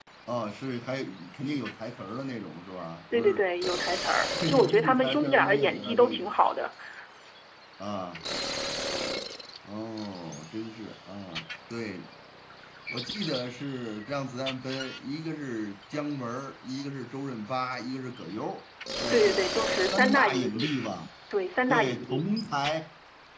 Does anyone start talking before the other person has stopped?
Yes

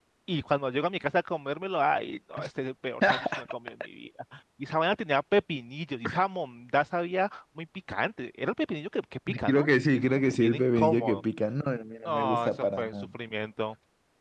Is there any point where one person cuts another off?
Yes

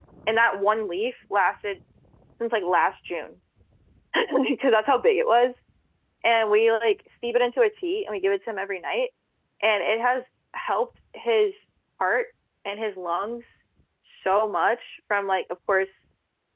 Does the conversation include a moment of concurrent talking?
No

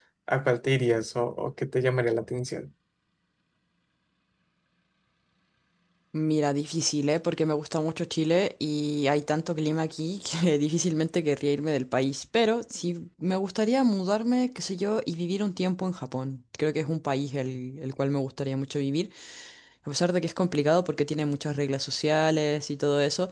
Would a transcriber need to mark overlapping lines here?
No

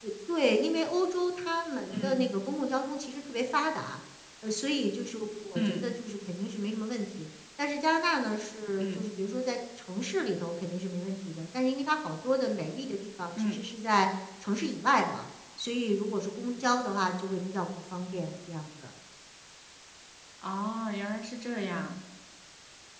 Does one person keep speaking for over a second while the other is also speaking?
No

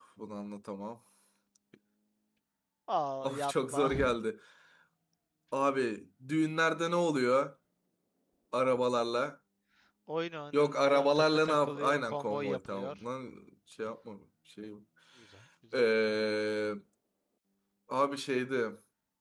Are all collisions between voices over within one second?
No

